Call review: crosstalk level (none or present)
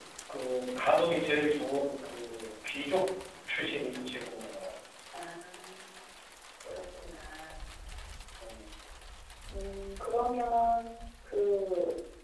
none